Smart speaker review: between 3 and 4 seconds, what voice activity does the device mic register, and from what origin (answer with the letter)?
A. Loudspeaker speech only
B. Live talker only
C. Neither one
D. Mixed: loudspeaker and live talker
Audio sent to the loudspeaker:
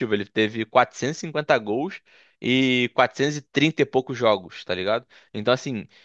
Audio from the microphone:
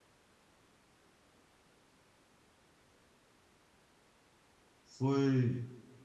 C